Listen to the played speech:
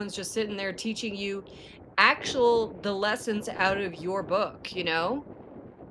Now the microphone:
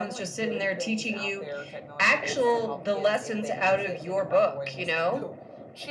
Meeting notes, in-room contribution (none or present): present